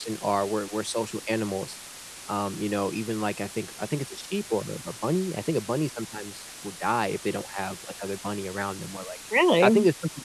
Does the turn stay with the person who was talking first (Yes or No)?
Yes